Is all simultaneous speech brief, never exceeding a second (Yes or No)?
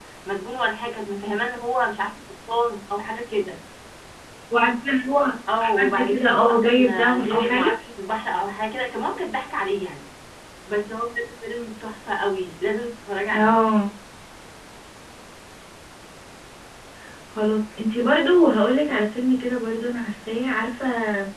No